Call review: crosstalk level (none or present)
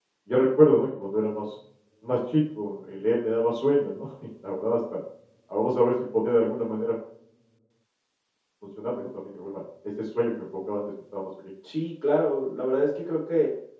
none